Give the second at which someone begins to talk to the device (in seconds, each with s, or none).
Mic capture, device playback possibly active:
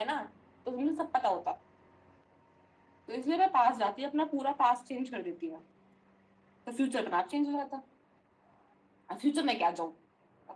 none